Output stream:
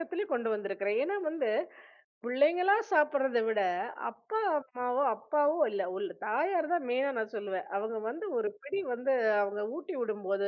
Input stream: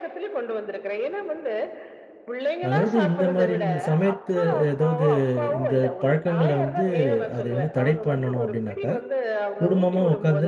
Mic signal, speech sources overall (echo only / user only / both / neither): both